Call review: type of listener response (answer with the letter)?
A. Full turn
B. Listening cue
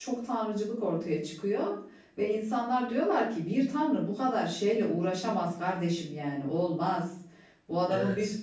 B